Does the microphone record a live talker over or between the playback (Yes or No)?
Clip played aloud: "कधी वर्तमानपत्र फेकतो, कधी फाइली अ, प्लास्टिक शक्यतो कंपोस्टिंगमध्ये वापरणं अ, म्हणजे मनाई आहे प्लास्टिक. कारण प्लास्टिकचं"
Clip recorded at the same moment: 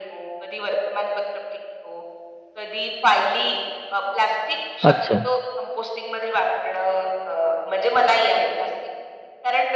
Yes